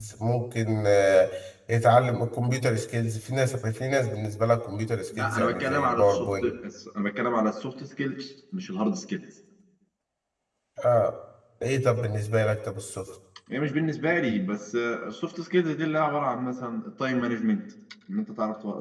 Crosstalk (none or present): present